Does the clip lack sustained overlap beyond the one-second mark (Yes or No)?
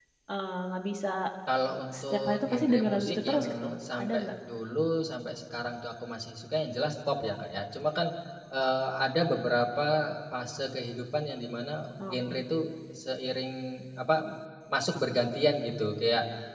No